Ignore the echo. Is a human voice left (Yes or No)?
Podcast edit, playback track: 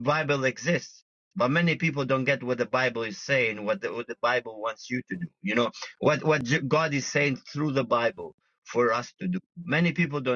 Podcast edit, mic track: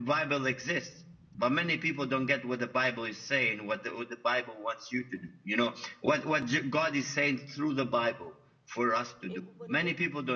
Yes